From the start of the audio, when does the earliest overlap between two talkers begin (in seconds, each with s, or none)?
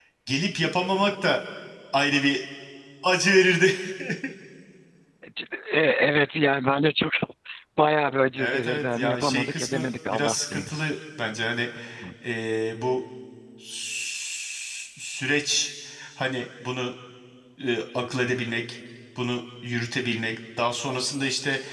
8.4 s